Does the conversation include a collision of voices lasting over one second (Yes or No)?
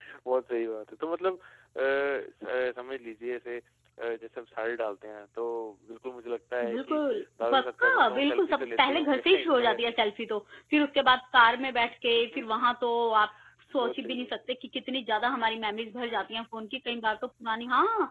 Yes